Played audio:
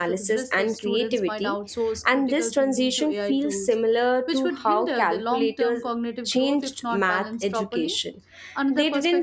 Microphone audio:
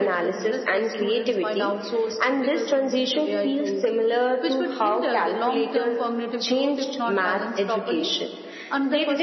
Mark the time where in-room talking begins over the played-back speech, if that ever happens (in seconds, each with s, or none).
none